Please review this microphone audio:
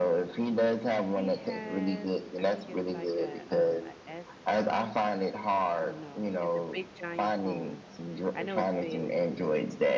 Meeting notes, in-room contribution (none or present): present